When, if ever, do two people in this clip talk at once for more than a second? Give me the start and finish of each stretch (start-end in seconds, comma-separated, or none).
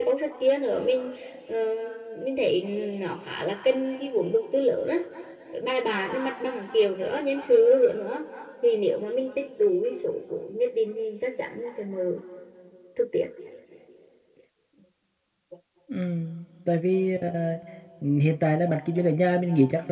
none